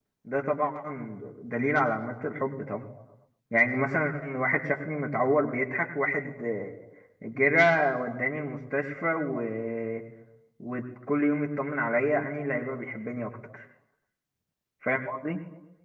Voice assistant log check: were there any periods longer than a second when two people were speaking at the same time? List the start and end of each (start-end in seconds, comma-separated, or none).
none